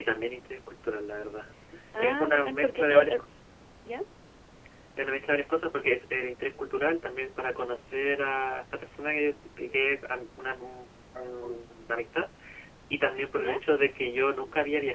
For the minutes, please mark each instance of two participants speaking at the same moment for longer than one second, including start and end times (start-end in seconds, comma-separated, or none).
2.0-3.2